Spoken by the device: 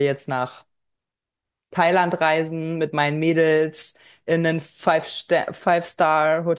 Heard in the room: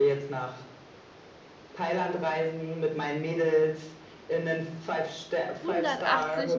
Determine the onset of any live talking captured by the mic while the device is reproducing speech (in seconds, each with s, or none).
5.6 s